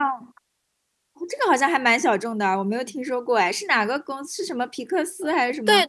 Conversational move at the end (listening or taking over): taking over